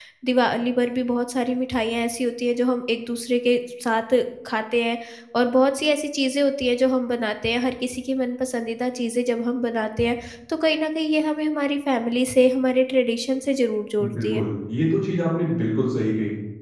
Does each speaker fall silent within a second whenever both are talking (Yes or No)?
Yes